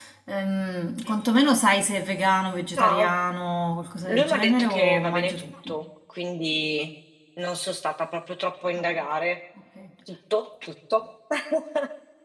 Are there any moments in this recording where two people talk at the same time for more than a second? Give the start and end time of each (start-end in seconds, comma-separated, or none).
4.0-5.8